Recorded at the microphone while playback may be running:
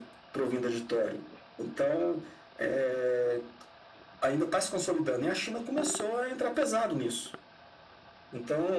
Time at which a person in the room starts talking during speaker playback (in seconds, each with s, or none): none